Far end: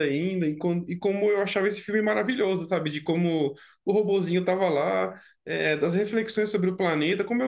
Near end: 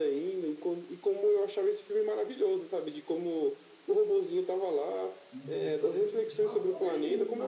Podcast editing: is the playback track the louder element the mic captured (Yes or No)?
Yes